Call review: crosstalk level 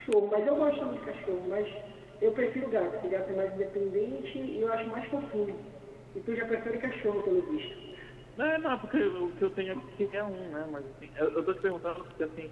none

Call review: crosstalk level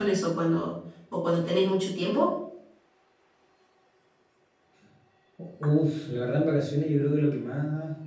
none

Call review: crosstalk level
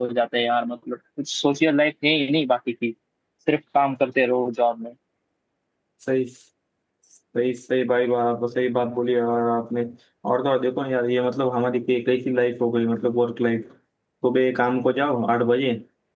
none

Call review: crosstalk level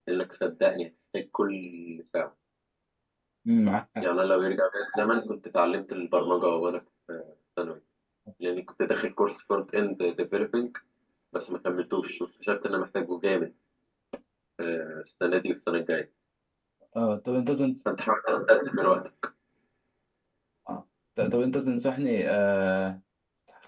none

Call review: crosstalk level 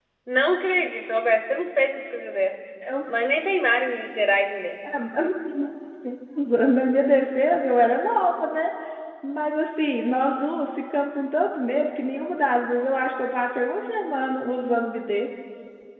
none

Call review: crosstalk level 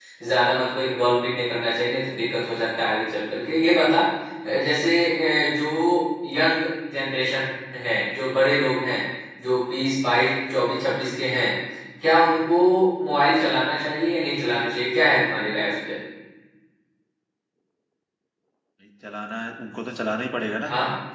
none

